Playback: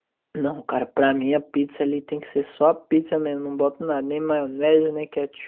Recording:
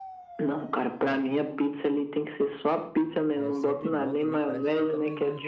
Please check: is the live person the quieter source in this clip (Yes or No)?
Yes